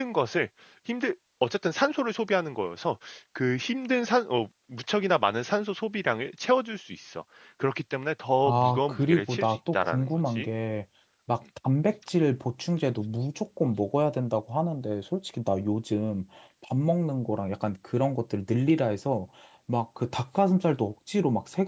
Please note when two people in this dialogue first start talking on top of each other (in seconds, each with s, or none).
8.5 s